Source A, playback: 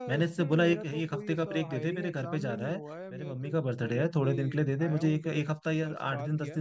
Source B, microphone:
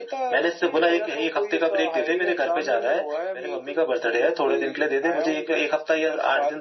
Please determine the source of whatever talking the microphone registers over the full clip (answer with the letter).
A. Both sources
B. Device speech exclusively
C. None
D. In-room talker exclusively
B